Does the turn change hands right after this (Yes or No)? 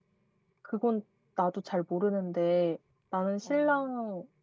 No